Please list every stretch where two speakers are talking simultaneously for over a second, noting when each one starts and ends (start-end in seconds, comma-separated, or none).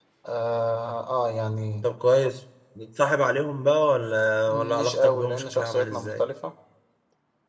4.5-6.2